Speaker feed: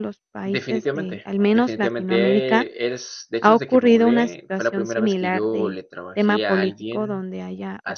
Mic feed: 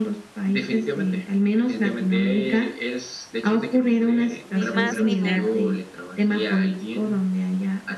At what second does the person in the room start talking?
4.5 s

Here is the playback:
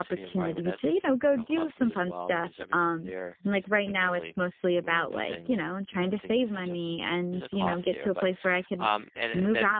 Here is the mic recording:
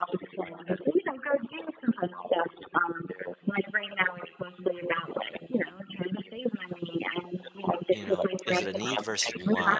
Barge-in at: 7.9 s

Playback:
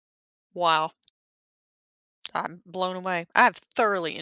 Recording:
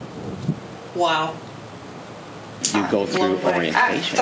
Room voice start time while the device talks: 2.7 s

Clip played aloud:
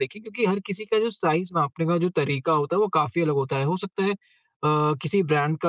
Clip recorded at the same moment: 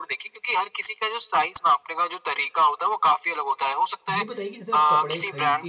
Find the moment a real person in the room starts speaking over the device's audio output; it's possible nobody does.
4.2 s

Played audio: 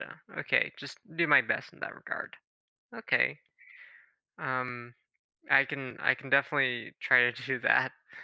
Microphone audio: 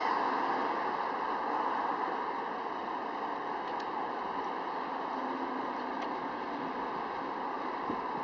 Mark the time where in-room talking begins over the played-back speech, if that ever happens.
none

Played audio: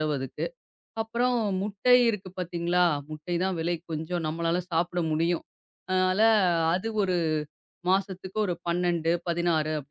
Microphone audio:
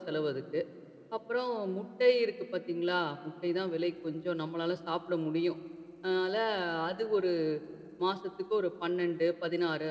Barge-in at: none

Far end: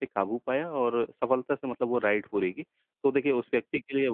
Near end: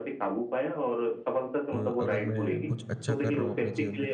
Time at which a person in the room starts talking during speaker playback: 1.7 s

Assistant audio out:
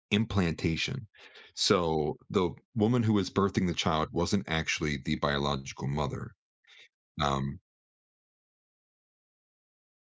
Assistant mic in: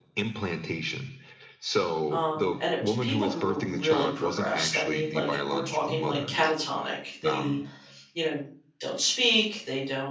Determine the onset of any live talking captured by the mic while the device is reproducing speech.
2.1 s

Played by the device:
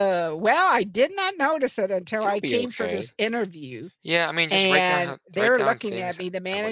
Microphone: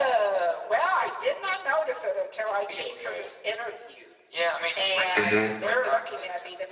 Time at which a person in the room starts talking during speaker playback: 5.2 s

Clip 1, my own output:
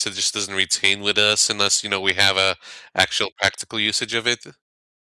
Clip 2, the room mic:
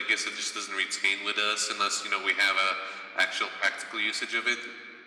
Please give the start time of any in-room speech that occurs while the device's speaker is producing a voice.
none

